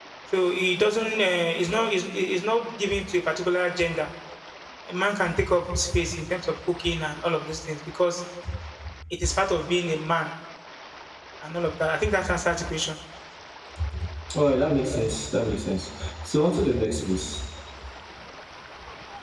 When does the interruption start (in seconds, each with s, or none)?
none